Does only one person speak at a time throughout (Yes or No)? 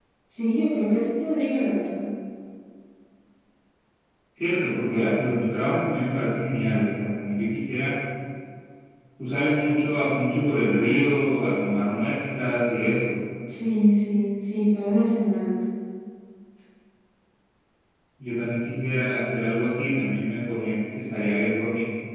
Yes